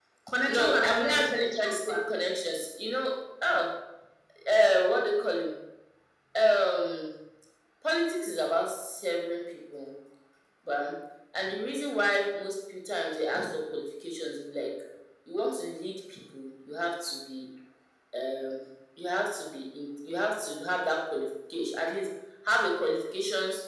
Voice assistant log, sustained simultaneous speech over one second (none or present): present